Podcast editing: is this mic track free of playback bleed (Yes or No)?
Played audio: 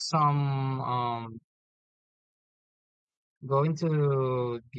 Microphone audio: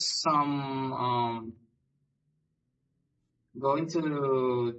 No